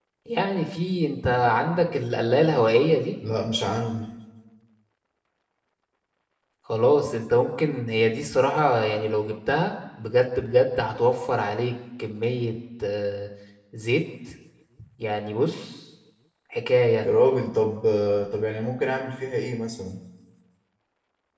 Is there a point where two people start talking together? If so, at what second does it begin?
none

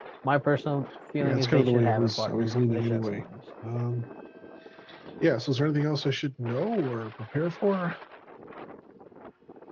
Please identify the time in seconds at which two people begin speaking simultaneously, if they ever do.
1.2 s

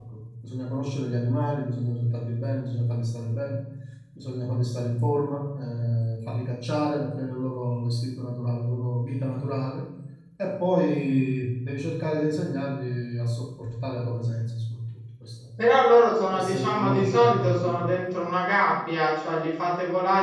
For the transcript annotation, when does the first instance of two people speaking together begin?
16.3 s

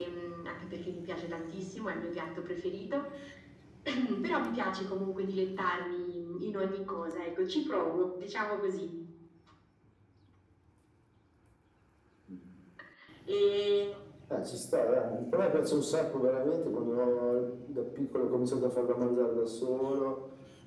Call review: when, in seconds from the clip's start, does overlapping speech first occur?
none

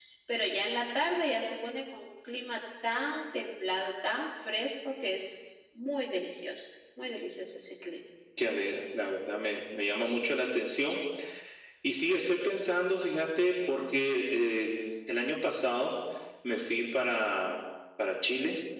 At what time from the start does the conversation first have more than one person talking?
none

